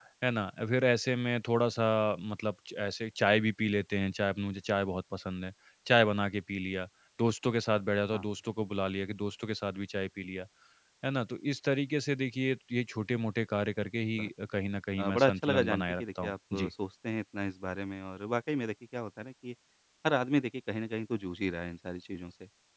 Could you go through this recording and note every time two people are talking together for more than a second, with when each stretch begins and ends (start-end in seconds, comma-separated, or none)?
15.1-16.7